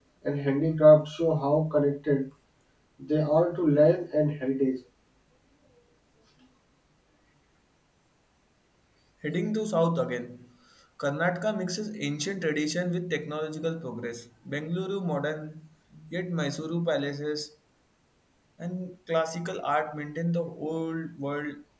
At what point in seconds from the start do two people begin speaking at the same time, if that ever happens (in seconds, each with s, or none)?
none